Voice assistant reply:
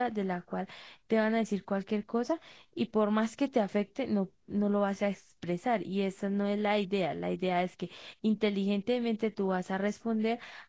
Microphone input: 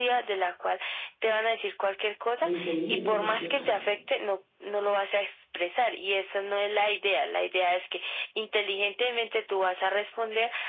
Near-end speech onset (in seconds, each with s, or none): 2.4 s